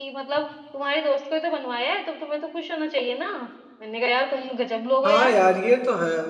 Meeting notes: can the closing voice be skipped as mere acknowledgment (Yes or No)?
No